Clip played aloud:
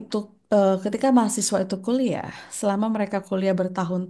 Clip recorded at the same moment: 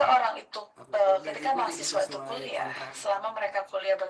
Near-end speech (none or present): present